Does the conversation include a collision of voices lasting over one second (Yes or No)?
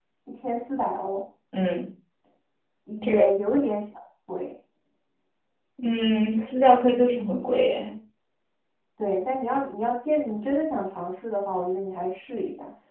No